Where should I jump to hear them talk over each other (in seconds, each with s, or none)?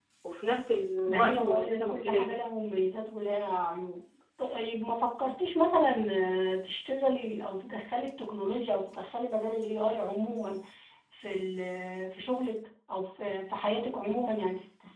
1.1 s